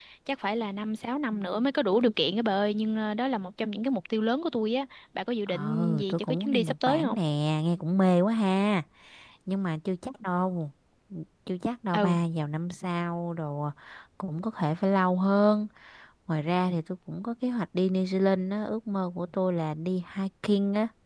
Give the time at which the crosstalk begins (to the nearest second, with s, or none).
5 s